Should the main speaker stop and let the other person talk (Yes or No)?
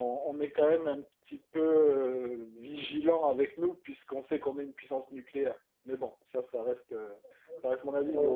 No